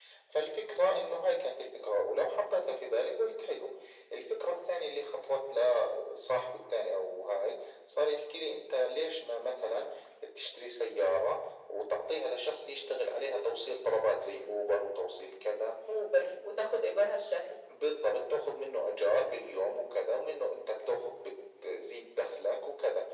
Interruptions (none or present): none